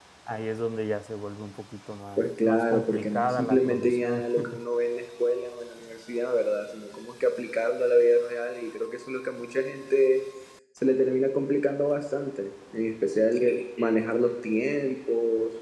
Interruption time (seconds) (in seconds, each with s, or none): 2.2 s